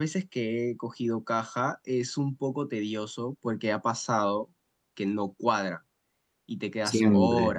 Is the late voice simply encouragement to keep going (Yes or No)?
No